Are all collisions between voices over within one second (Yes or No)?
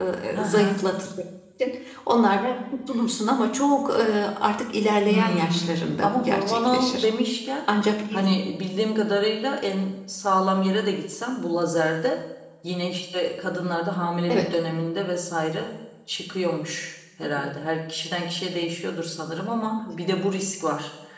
No